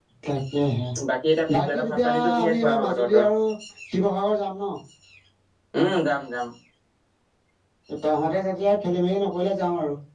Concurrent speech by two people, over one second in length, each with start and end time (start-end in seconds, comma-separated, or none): 1.5-3.2